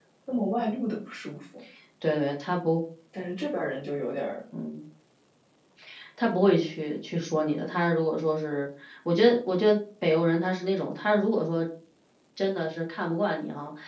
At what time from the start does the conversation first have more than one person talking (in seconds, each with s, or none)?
none